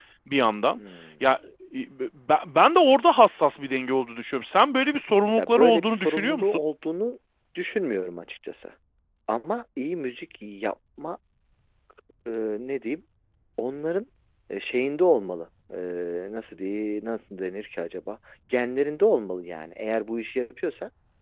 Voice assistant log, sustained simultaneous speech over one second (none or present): present